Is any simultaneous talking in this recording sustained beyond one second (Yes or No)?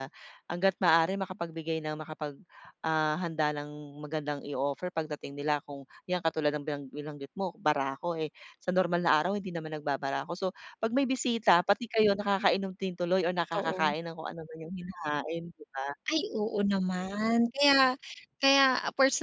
No